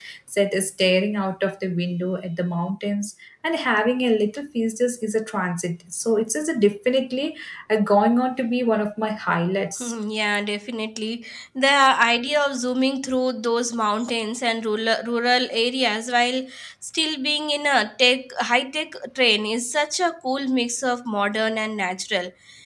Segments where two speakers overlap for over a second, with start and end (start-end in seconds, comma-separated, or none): none